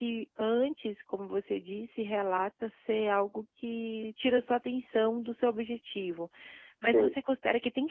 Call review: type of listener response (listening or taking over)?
listening